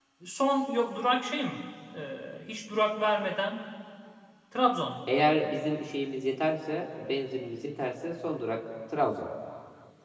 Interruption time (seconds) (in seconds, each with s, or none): none